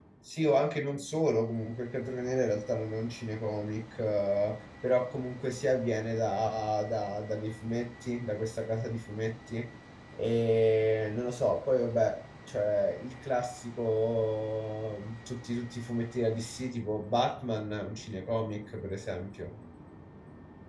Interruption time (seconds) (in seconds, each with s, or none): none